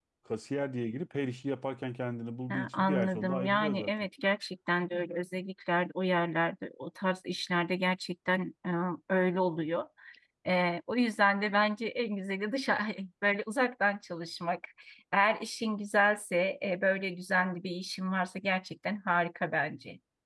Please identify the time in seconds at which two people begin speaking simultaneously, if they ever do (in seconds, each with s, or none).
2.5 s